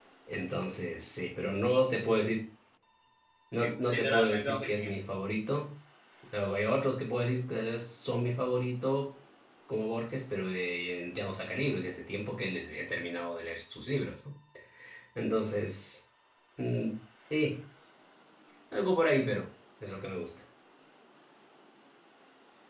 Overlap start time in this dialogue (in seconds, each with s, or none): 3.6 s